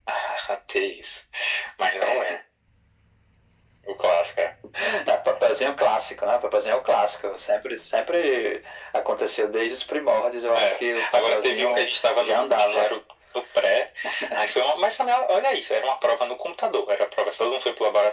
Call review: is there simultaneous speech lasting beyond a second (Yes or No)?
Yes